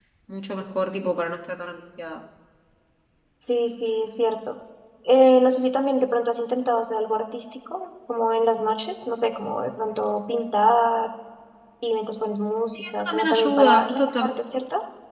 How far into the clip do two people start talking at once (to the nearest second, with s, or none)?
13 s